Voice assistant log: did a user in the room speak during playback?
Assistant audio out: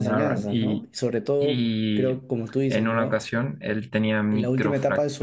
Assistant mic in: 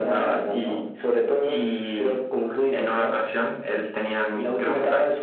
No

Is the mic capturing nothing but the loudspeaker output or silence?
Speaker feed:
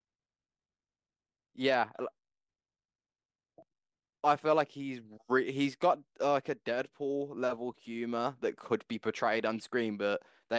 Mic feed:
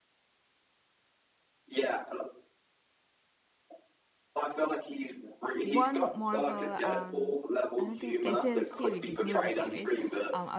No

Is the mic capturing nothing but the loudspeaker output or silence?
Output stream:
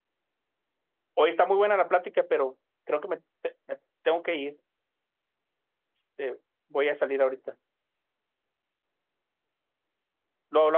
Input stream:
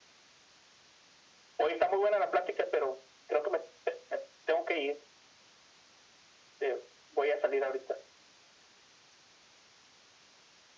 Yes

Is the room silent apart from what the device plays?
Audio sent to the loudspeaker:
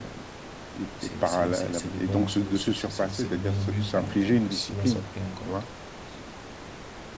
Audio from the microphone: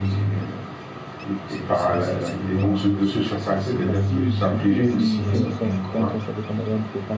No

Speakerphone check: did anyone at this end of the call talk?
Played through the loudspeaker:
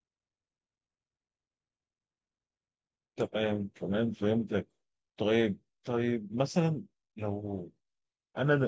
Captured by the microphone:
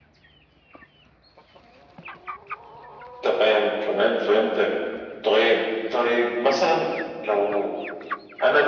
No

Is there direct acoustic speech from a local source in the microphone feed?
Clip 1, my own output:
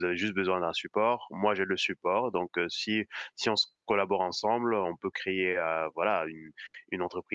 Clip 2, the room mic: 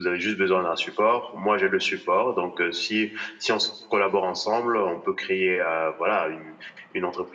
No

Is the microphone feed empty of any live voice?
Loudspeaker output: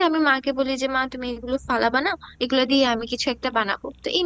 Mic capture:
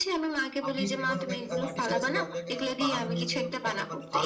No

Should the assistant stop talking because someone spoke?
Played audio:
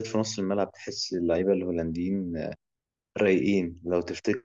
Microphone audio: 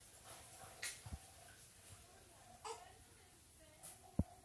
No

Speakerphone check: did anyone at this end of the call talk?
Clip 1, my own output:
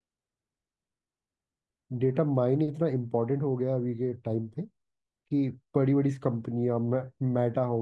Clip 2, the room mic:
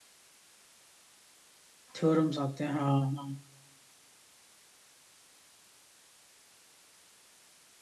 Yes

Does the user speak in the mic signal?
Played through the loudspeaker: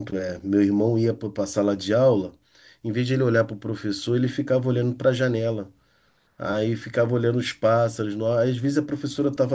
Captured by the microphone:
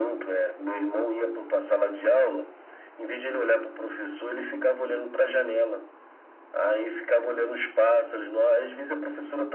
No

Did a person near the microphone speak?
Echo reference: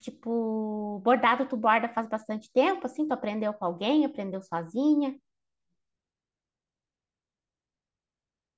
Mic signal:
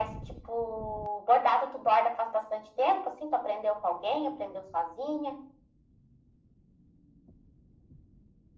No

